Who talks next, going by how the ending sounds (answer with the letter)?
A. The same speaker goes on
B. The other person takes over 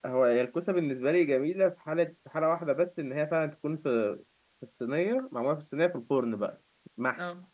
A